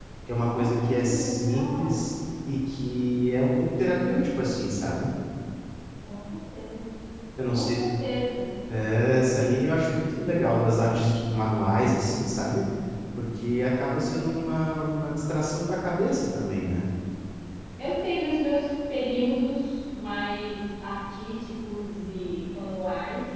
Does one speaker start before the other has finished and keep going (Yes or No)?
Yes